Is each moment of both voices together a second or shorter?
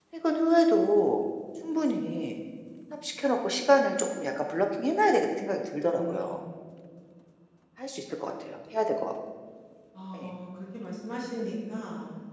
Yes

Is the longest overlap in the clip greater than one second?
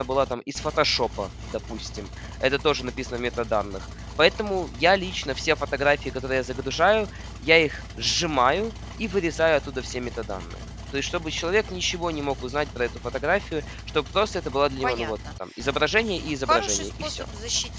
Yes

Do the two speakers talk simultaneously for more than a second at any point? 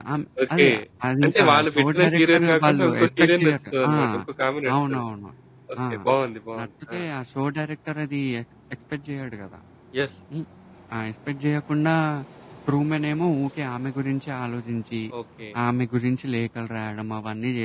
Yes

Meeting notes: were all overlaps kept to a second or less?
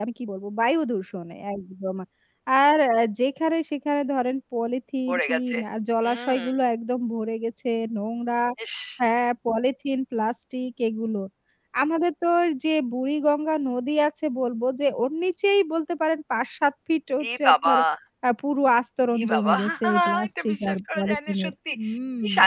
No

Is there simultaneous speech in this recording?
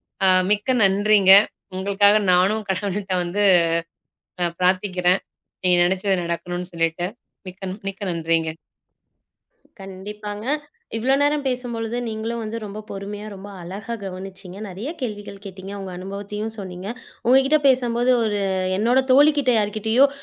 No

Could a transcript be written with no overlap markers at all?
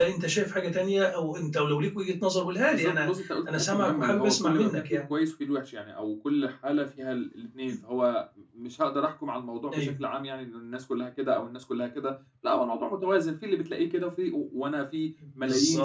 No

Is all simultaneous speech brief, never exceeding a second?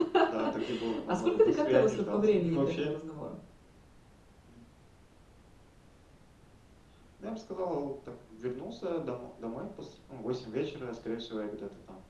No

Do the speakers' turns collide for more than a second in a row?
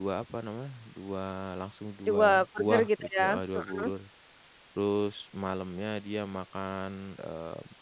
Yes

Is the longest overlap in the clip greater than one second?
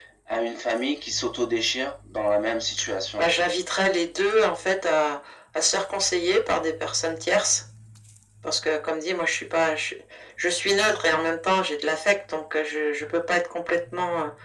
No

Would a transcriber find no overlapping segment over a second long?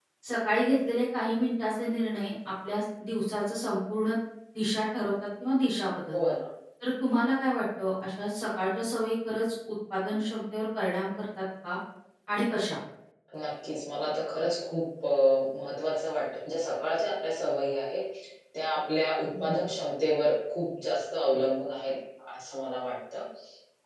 Yes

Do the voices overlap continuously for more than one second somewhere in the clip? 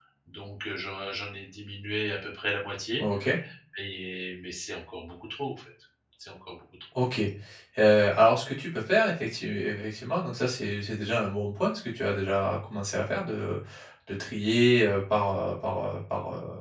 No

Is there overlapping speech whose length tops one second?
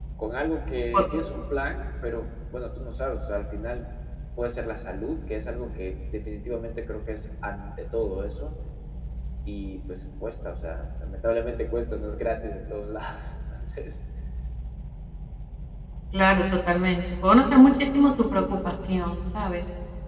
No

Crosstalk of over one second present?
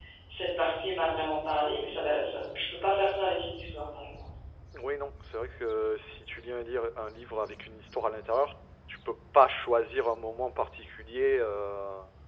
No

